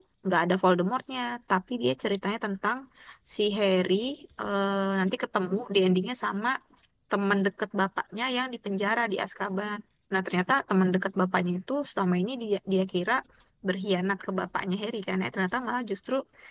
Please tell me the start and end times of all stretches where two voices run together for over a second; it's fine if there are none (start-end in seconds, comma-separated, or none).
none